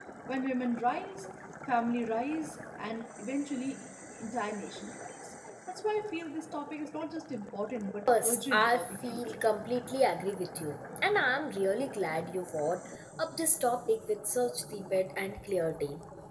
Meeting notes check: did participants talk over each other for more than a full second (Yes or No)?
Yes